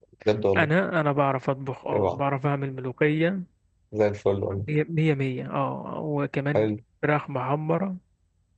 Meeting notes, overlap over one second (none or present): none